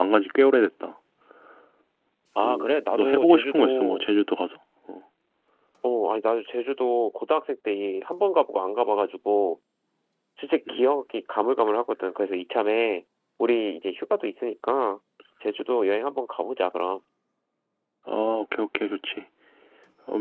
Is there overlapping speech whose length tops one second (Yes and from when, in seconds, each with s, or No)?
Yes, from 2.4 s